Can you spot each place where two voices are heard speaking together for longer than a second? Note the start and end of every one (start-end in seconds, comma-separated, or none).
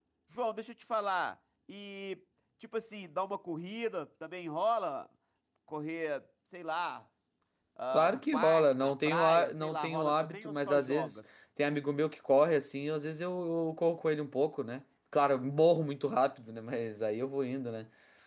7.9-11.2